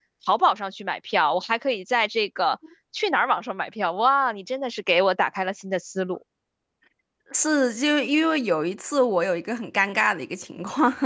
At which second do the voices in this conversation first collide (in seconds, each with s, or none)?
none